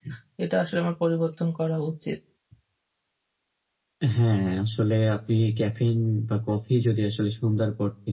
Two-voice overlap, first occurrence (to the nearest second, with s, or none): none